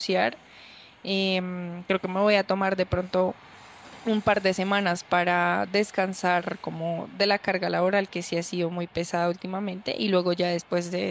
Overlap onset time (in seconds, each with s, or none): none